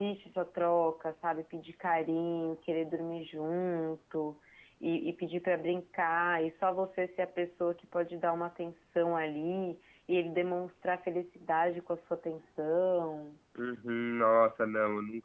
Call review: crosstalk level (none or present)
none